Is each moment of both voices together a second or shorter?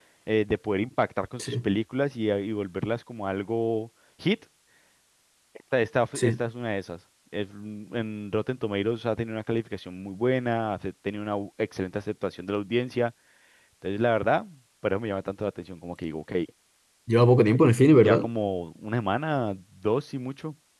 Yes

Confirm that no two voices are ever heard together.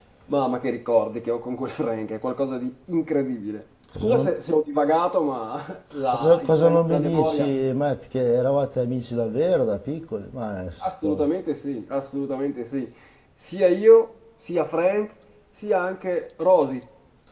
No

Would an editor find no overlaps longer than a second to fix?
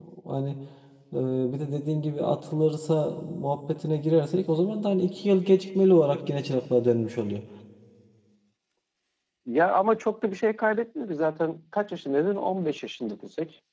Yes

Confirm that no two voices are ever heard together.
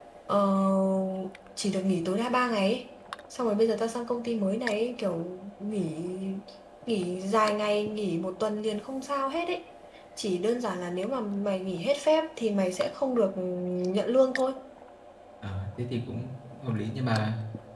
Yes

